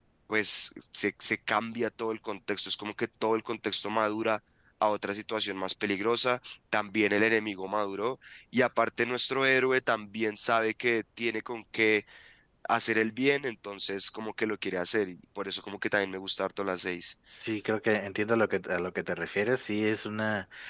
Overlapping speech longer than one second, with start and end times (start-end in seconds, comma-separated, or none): none